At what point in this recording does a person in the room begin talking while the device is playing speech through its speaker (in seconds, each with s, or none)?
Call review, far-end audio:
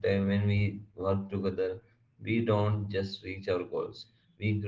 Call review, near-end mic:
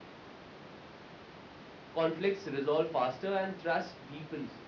1.9 s